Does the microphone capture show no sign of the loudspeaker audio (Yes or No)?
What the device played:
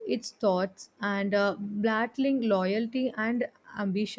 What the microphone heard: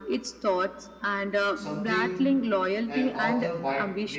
No